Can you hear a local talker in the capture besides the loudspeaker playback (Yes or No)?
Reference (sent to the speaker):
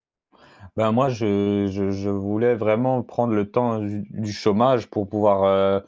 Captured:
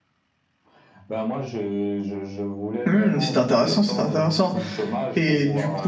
Yes